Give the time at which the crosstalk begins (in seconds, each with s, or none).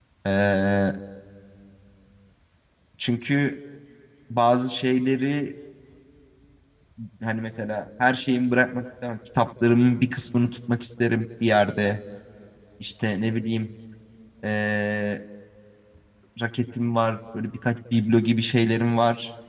none